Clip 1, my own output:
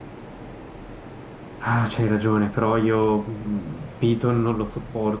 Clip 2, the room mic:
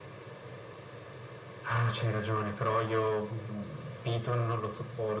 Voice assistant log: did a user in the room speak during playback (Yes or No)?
No